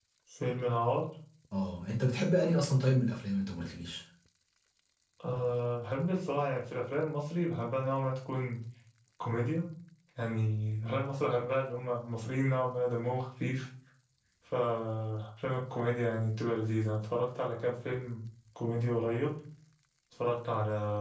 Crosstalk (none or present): none